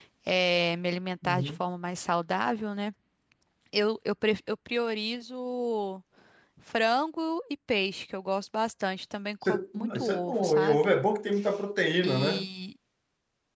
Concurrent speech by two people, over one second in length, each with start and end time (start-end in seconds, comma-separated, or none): 9.4-10.8